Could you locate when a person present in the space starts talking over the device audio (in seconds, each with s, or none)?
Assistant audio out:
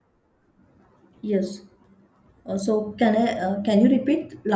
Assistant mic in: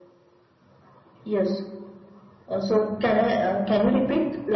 none